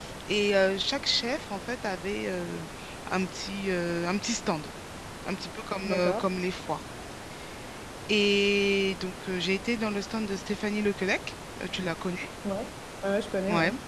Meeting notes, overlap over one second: none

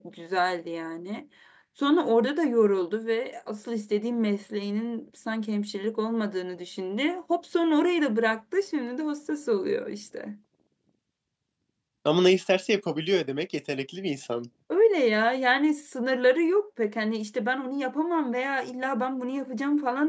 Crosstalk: none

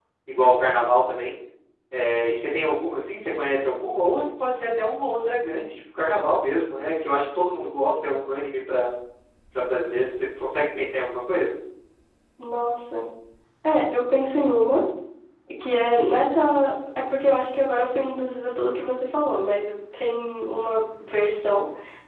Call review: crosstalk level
none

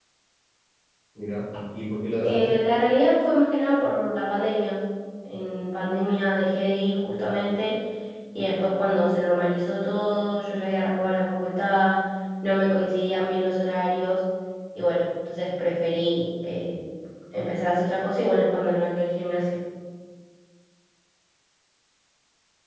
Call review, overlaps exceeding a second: none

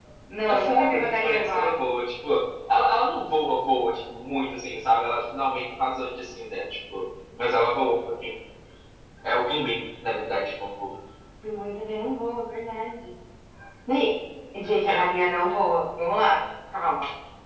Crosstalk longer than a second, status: present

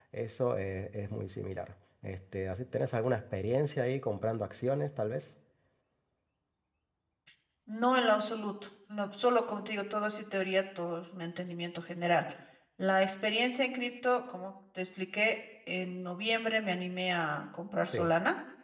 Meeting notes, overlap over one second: none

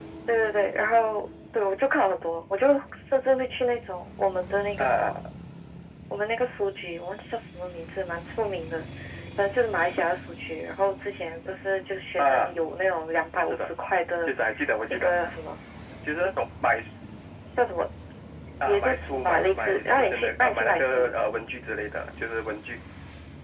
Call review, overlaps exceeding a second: present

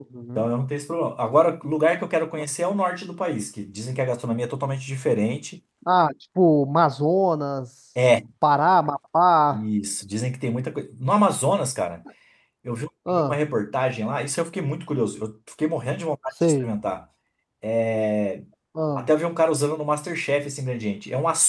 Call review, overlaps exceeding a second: none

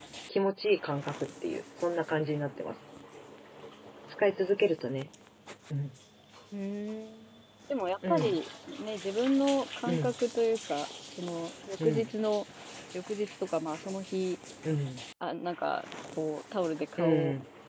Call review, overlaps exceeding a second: none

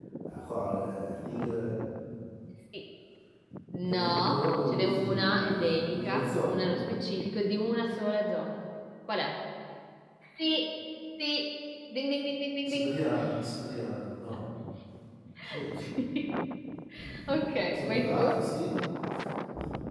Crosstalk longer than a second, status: present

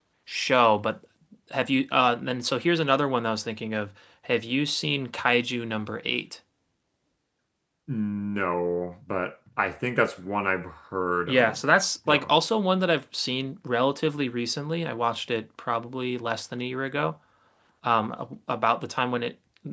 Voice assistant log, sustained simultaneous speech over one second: none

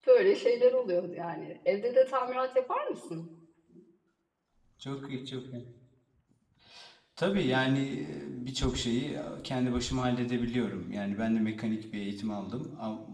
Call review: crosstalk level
none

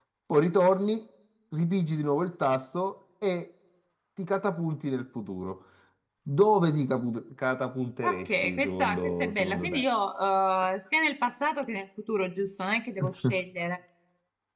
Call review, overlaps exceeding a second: present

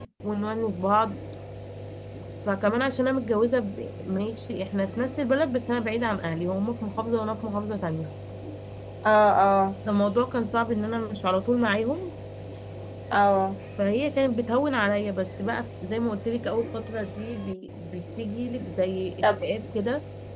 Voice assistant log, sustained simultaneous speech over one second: none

